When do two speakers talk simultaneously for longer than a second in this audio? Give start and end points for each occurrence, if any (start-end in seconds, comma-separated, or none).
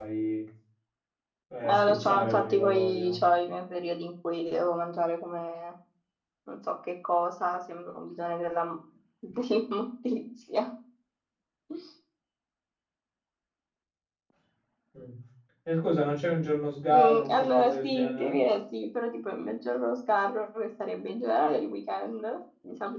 1.6-3.2, 16.9-18.4